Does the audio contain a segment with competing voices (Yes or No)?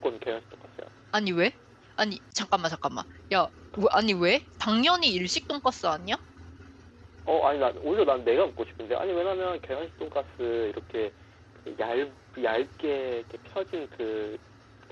No